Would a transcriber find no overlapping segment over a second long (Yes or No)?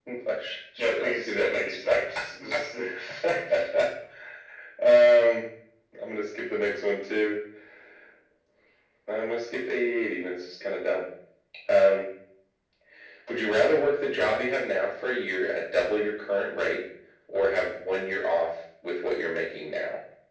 No